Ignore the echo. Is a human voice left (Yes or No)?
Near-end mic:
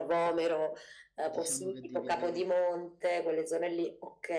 Yes